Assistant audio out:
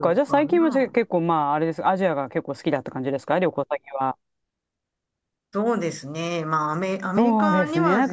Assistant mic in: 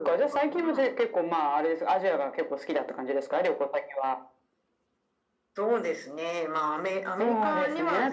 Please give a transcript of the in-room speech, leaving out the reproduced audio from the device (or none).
none